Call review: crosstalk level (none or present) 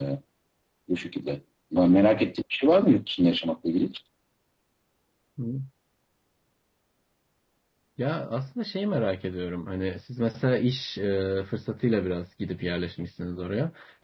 none